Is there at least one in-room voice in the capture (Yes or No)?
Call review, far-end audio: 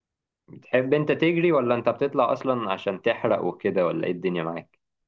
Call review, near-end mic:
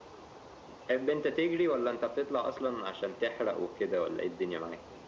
No